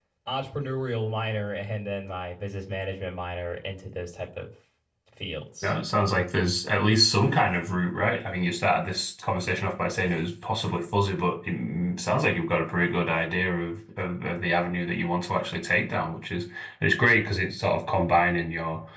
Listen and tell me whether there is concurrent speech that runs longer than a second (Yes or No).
No